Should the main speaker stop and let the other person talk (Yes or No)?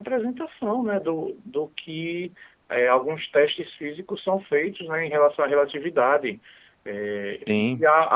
No